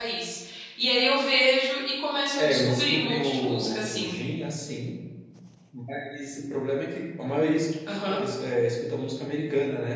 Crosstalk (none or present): present